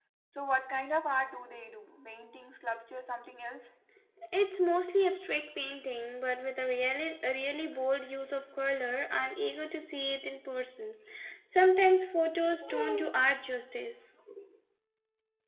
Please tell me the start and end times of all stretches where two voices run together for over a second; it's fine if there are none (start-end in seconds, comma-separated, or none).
none